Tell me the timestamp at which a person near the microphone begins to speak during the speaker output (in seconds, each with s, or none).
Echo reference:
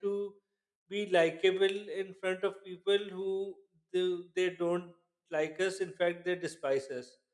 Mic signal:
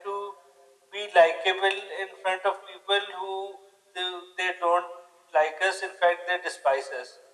none